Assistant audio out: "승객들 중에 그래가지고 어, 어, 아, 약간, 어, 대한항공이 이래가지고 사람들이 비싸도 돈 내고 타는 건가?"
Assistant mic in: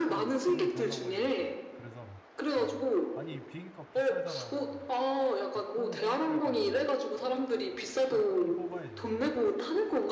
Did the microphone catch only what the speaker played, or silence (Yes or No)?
No